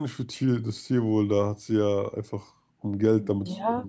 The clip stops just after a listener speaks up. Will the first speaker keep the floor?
No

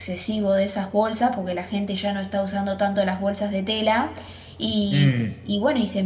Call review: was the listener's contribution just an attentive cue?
Yes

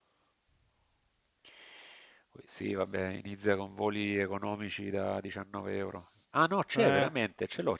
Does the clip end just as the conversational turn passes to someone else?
No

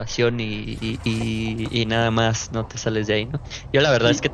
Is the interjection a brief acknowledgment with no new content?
Yes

